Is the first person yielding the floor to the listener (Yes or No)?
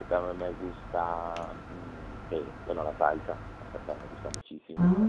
No